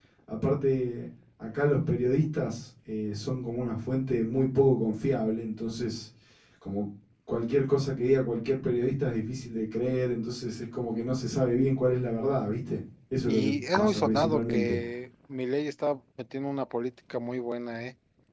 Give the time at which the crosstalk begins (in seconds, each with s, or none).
13.3 s